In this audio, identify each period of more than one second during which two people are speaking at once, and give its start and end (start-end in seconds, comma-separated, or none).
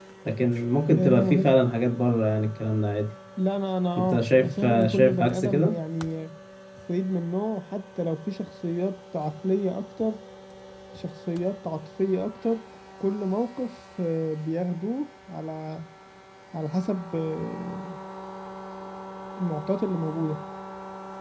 4.1-5.7